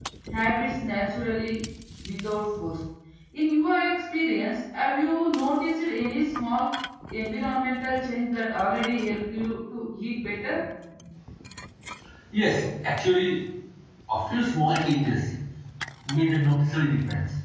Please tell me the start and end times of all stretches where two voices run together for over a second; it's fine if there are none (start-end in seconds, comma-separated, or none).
none